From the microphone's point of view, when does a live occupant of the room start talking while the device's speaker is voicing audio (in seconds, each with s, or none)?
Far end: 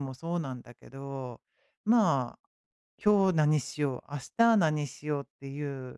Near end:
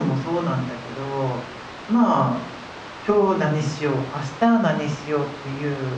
none